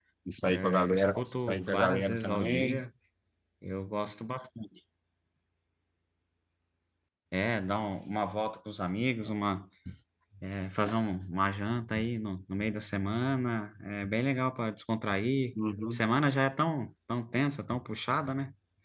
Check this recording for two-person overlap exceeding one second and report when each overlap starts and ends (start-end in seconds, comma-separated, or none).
0.5-2.8